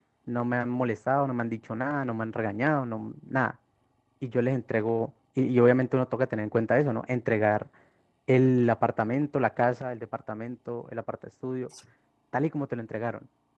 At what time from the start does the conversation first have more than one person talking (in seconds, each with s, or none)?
none